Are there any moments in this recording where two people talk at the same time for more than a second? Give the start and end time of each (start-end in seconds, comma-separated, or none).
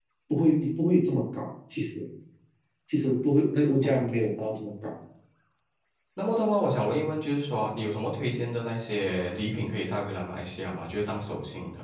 none